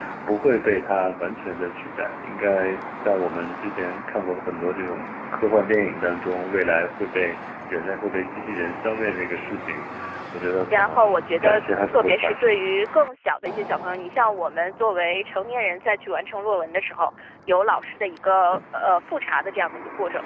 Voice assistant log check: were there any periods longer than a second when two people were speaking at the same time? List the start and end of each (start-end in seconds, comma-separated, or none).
10.7-12.6